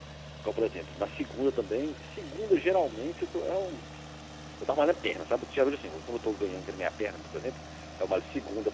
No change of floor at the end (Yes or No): Yes